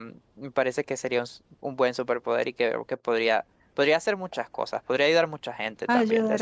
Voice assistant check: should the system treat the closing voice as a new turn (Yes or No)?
Yes